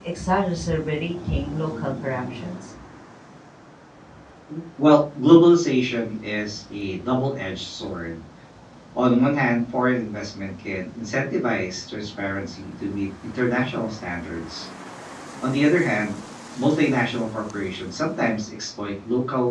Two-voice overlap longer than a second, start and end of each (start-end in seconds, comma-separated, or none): none